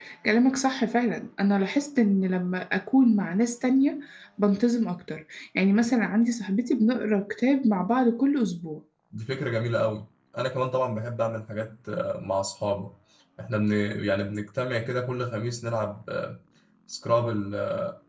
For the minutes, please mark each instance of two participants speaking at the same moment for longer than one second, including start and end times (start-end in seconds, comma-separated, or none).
none